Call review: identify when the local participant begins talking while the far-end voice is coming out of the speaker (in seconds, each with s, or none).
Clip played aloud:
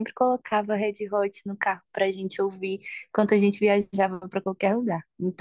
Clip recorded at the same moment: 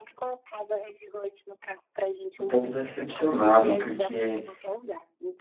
2.4 s